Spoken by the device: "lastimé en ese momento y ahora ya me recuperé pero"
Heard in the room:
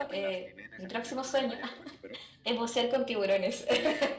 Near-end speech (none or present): present